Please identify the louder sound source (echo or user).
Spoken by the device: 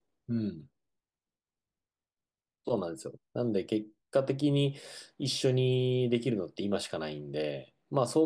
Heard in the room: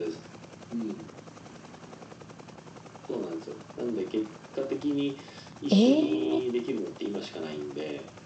user